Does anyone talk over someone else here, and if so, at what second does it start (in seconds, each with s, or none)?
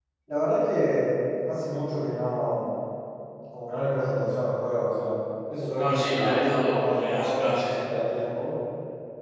5.8 s